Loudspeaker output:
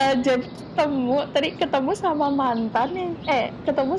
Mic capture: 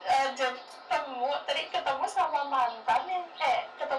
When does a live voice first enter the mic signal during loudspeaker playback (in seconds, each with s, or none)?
none